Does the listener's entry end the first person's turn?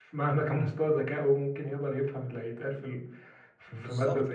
Yes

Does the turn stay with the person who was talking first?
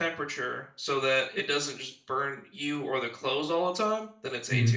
No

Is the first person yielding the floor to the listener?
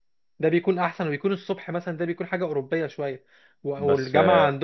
No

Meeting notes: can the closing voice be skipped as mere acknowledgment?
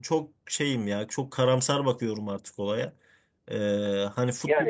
Yes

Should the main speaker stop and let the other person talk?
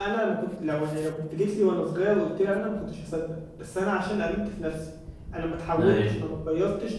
No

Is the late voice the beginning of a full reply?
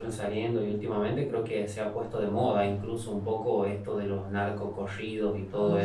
No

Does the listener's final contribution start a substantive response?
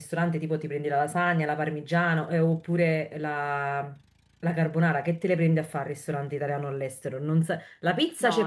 No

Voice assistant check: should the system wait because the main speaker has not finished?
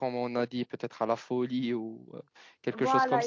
No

